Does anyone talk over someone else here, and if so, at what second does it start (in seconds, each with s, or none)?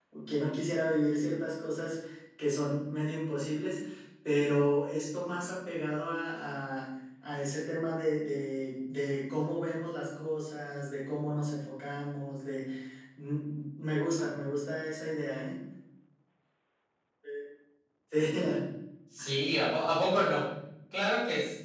none